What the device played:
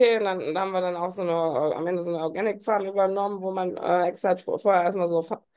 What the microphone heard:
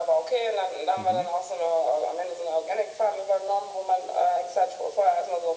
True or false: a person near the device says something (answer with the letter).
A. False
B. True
B